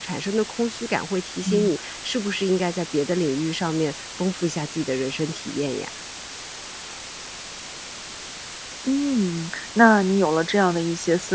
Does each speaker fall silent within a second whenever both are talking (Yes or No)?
Yes